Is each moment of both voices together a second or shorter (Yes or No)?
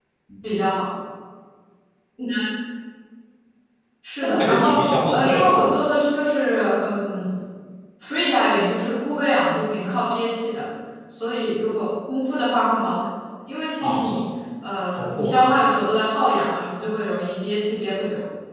No